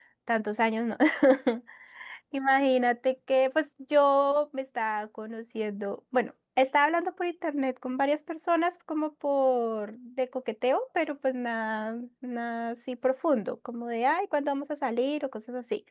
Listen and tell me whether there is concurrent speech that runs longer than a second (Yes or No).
No